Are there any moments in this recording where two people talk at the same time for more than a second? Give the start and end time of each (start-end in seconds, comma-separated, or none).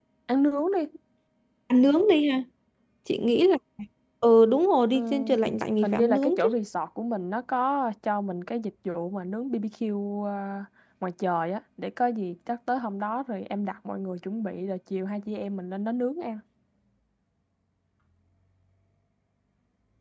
4.9-6.5